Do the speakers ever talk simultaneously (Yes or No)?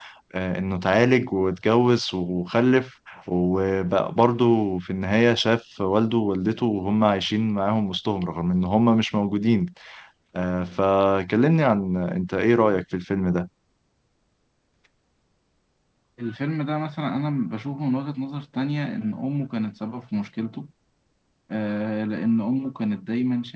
No